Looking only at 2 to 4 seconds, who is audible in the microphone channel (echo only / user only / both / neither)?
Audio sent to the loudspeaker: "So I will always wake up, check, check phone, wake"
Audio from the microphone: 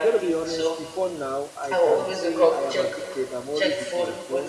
both